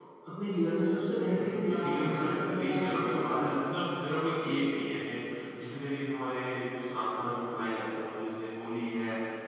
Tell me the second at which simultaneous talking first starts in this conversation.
1 s

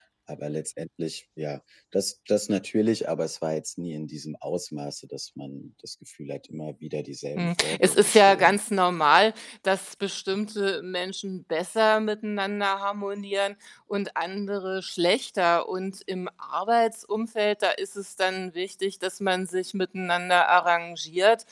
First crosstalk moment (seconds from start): 7 s

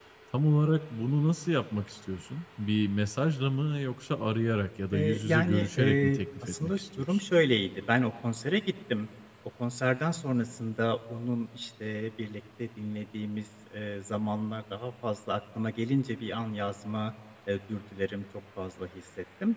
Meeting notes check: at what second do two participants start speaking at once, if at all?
5 s

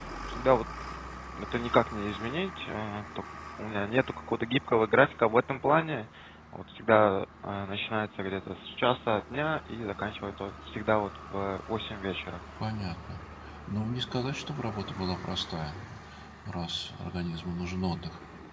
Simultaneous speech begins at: none

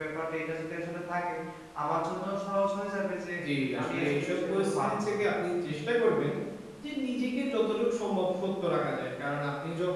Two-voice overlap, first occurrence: 4 s

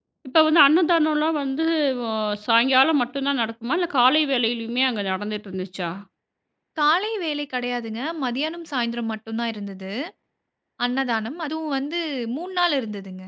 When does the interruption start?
none

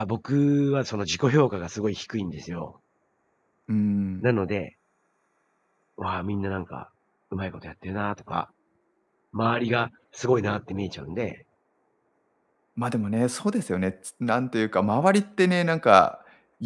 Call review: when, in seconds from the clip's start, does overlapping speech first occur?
none

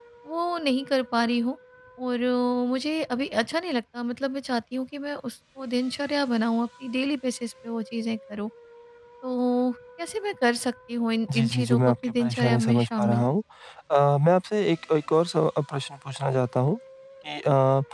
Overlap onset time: 11 s

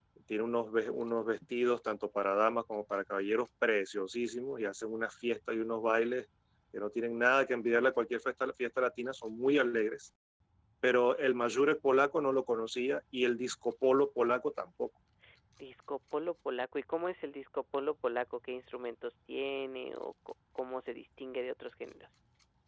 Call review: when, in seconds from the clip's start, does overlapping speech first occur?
none

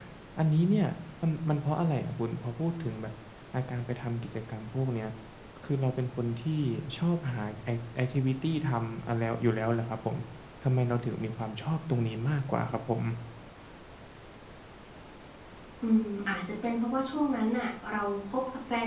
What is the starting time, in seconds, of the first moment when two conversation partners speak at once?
none

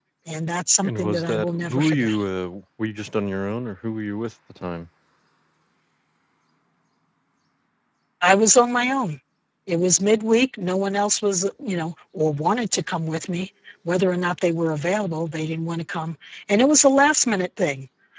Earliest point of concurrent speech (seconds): 1 s

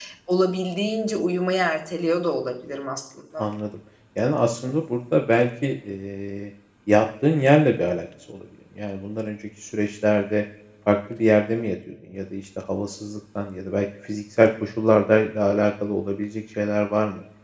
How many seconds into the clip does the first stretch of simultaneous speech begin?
none

